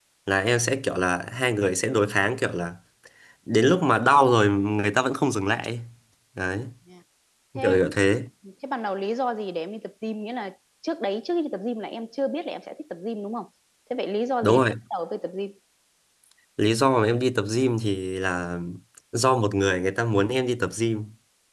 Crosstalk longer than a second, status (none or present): none